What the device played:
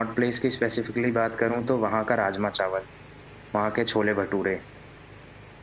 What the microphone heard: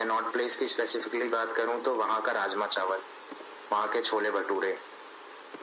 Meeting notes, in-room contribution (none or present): none